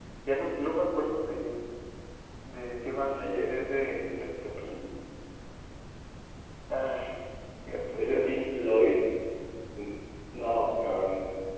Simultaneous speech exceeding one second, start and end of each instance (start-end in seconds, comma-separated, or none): none